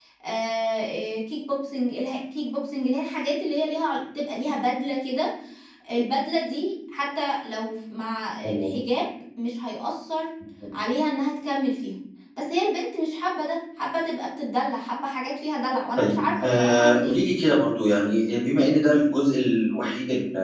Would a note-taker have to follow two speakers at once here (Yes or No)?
Yes